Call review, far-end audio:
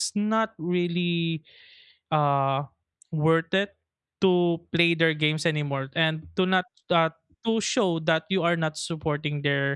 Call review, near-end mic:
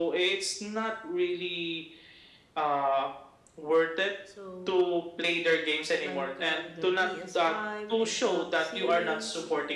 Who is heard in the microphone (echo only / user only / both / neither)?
both